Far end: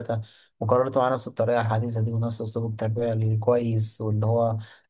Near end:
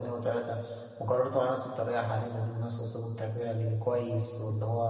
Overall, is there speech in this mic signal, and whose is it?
echo only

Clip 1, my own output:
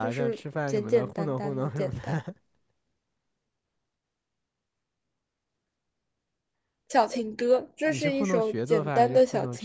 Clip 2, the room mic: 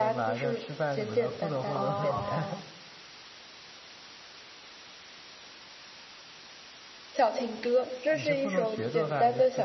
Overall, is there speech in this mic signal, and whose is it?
both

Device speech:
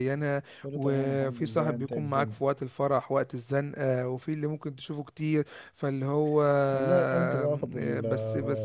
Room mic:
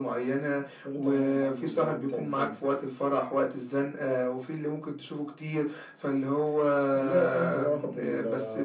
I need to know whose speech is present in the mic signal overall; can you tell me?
echo only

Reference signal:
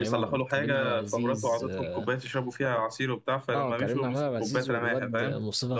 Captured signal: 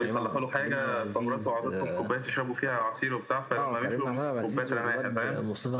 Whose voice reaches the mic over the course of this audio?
echo only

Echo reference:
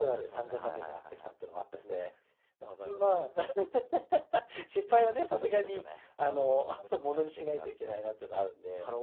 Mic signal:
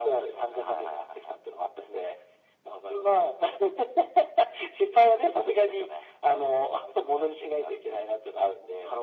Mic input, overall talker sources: echo only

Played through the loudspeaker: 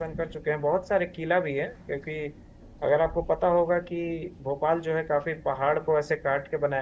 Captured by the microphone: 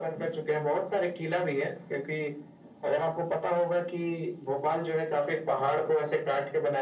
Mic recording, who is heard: echo only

